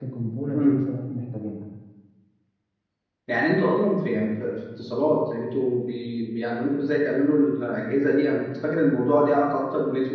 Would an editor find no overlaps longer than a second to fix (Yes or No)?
Yes